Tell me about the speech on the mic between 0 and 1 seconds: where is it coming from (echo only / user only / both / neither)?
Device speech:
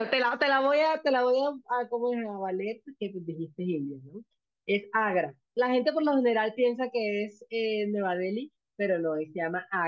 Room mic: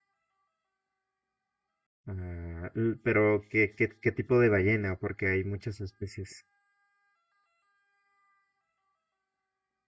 neither